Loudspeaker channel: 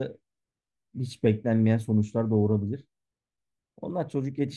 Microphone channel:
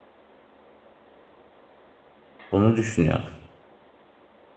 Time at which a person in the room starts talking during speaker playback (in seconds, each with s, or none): 2.5 s